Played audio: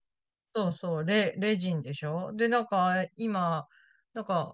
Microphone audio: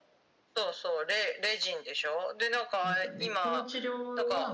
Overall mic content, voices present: both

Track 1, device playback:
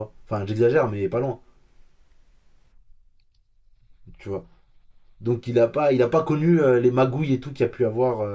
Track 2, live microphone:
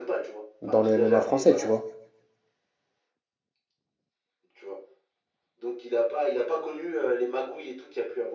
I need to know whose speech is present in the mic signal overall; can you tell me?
both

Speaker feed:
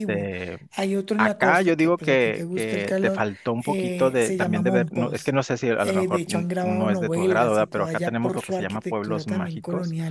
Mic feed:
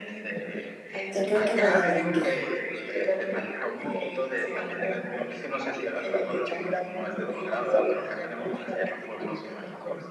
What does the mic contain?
both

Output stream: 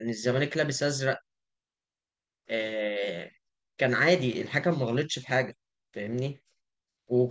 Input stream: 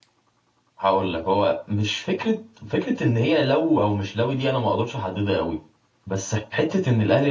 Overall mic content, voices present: user only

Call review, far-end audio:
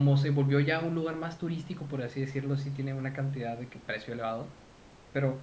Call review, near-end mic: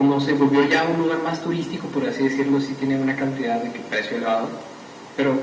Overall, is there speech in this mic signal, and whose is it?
echo only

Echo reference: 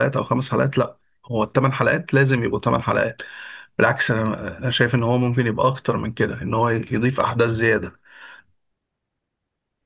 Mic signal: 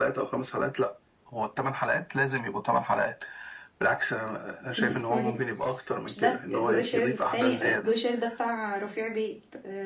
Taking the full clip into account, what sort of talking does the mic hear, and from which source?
both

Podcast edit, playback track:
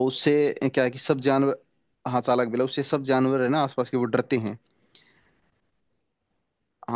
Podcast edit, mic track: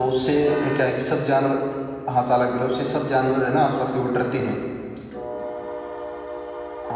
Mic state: echo only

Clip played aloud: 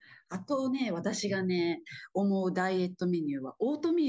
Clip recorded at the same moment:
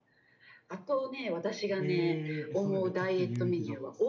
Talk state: both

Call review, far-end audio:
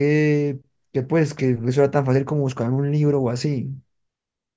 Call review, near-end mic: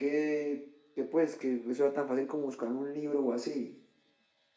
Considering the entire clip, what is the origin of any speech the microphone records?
echo only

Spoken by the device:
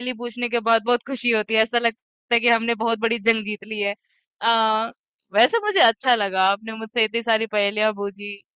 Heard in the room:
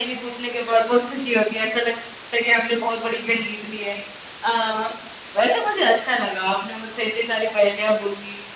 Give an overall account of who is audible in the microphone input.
echo only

